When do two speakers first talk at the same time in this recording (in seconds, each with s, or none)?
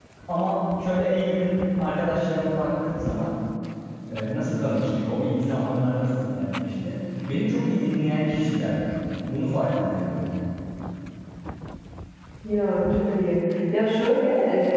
none